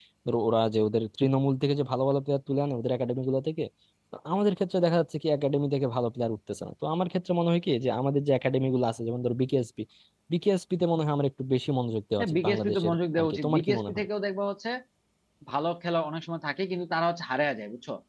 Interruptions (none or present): present